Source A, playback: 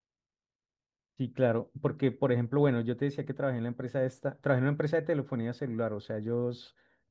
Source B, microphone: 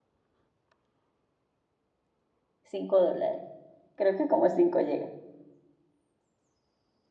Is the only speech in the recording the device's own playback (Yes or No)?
No